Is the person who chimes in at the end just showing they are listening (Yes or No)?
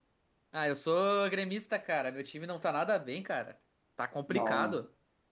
No